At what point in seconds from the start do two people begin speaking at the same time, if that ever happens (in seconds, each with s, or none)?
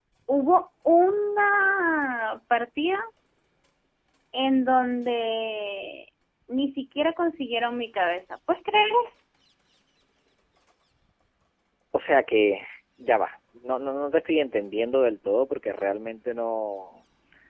none